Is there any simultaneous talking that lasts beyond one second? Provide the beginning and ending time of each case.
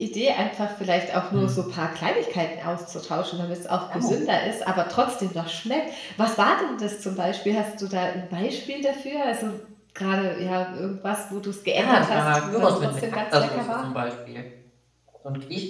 11.8-13.9

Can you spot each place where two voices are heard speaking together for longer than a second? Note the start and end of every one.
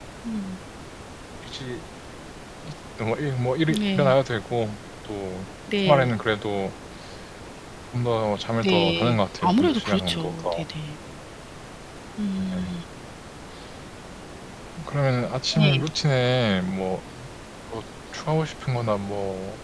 8.6-10.6

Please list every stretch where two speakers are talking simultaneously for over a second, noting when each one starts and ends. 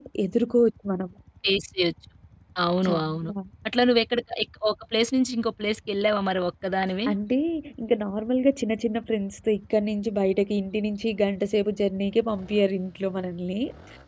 none

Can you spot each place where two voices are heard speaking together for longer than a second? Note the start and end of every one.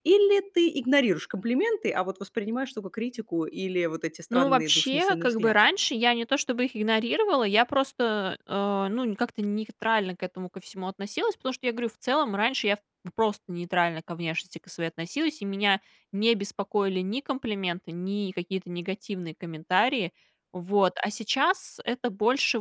4.3-5.5

